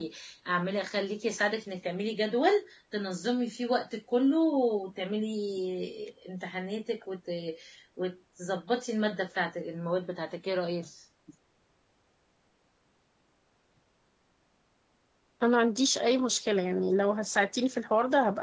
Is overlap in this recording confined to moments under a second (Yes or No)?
Yes